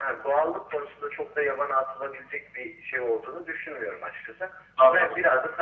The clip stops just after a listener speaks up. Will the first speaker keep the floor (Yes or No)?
Yes